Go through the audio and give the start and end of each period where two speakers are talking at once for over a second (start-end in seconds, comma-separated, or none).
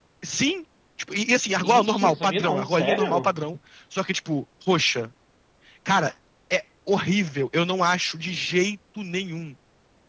1.6-3.3